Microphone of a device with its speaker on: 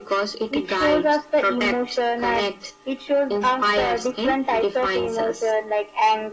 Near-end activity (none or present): none